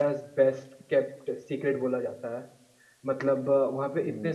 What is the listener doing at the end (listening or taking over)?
listening